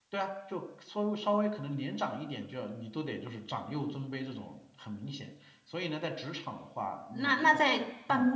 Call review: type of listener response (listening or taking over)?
taking over